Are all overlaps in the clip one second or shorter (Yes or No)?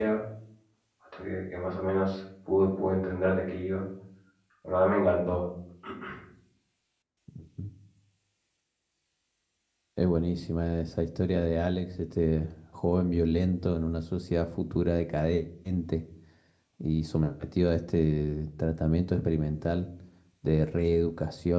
Yes